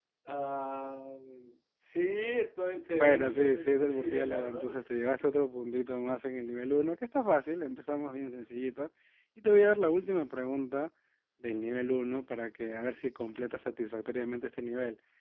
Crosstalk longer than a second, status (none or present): present